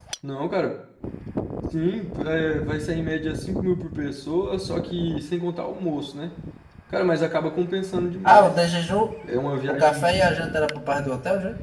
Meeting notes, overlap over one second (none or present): none